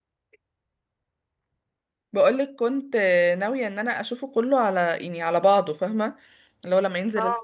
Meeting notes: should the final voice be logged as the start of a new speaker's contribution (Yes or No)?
No